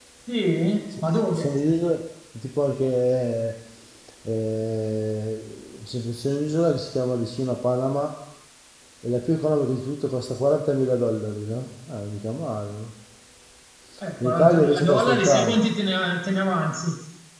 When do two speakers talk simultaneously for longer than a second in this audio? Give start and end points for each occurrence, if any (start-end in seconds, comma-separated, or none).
14.2-15.6